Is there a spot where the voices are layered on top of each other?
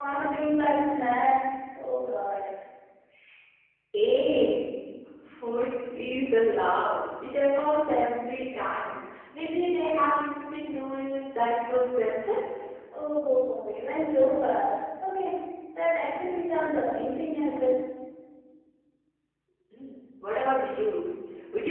No

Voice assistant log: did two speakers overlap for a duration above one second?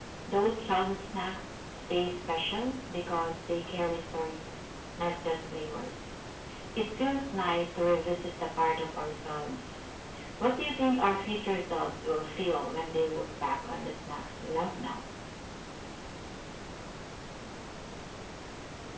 No

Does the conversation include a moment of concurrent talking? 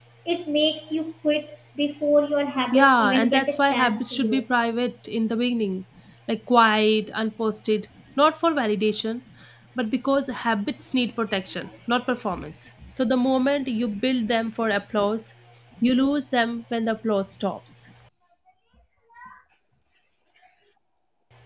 Yes, from 2.7 s

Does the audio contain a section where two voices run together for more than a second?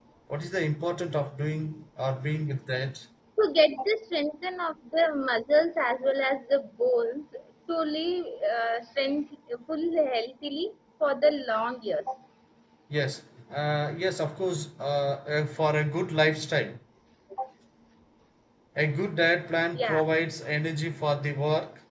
No

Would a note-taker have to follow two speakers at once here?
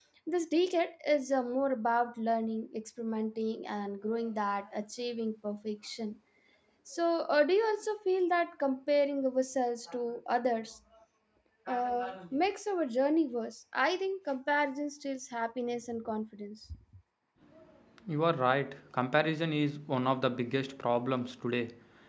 No

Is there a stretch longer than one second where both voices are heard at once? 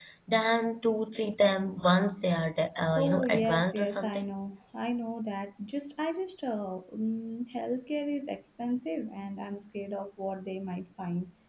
Yes, from 2.9 s

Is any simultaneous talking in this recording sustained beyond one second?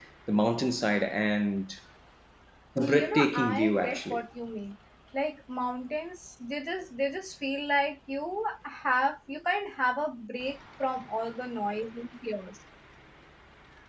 Yes, from 2.8 s

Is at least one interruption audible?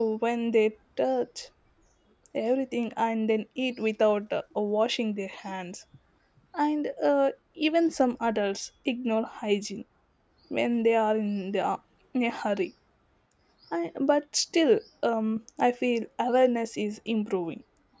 No

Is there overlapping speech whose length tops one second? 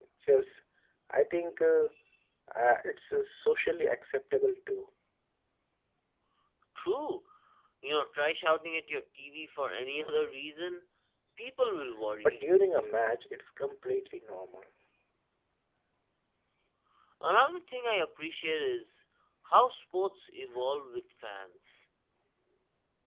No

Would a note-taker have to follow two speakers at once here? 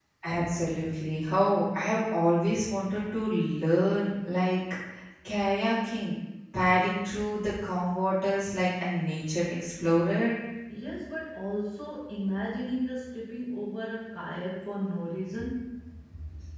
No

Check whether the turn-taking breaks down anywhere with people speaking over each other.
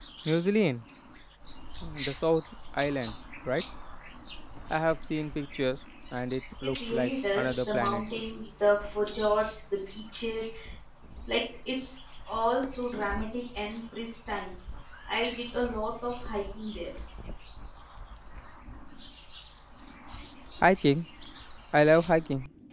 Yes, from 6.6 s

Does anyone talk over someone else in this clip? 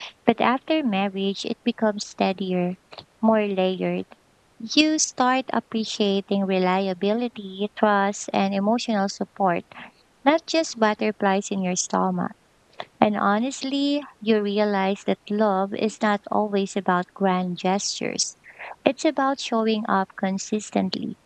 No

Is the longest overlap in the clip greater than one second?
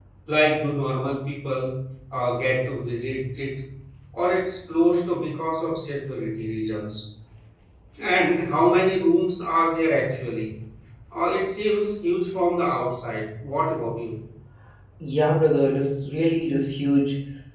No

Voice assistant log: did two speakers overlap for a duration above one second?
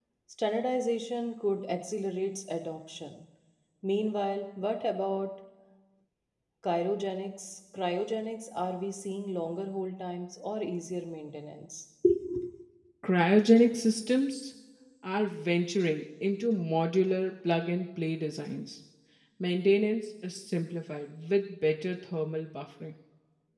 No

